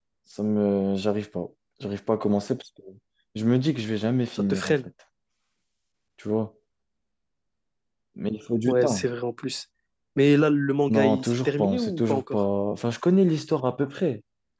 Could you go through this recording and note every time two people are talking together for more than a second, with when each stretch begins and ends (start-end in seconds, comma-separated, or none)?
10.9-12.4